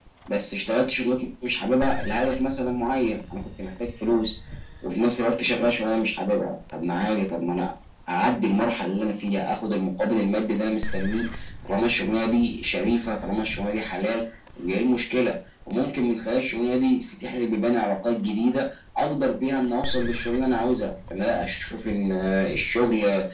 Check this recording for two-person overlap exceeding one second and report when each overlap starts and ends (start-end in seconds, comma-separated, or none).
none